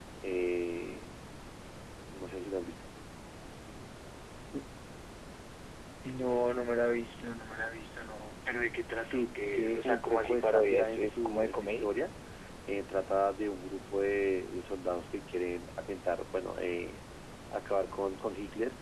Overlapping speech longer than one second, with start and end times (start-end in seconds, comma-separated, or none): 9.0-11.8